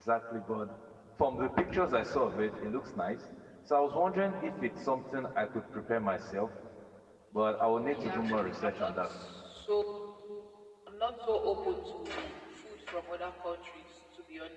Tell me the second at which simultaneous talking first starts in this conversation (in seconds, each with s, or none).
7.7 s